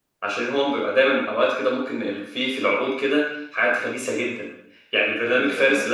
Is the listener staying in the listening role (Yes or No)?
Yes